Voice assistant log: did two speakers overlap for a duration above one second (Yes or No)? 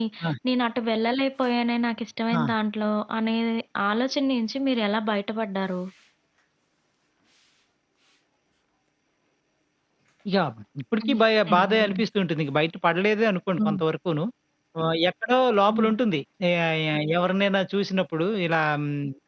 No